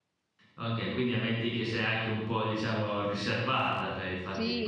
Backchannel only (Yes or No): No